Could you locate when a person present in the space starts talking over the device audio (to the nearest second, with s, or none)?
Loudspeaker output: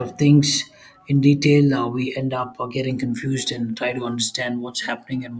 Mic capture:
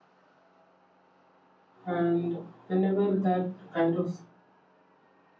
2 s